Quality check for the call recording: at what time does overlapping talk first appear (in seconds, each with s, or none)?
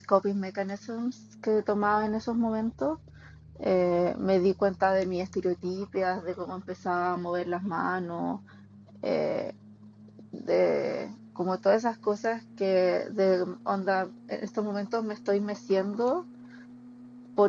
none